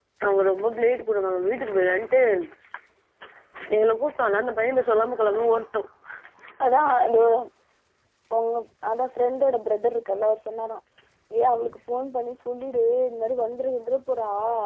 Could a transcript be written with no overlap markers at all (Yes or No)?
Yes